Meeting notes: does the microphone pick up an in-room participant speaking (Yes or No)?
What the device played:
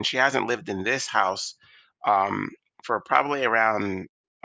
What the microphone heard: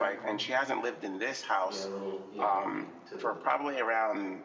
Yes